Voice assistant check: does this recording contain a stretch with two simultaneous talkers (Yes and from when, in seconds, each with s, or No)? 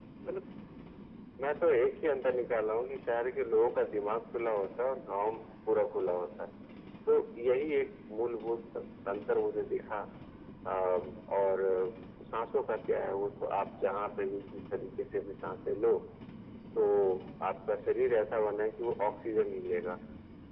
No